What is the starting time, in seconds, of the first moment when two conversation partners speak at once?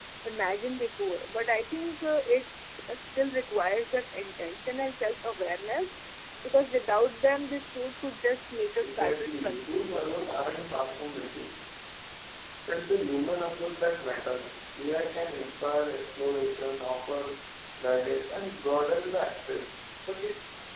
8.8 s

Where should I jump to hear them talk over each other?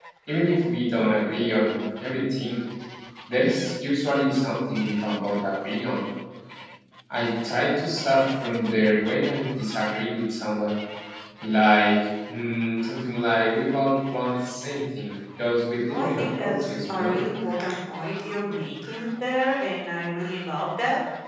15.9 s

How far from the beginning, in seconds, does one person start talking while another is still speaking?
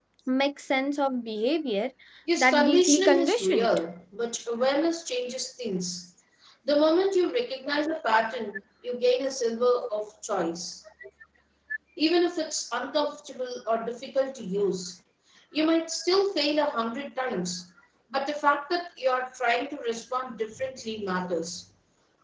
2.4 s

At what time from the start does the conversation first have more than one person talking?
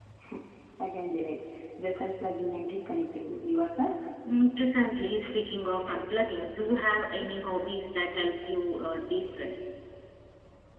none

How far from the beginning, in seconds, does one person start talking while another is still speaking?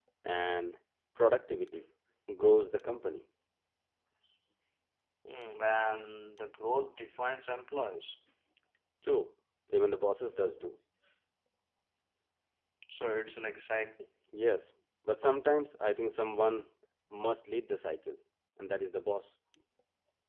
none

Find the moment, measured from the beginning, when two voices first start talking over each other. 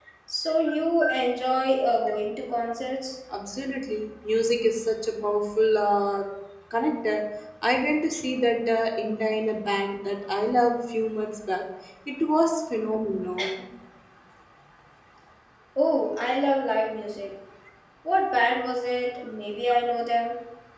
none

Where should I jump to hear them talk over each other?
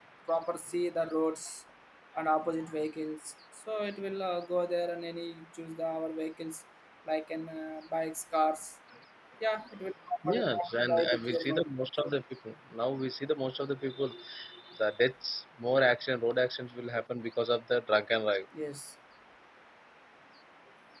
10.3 s

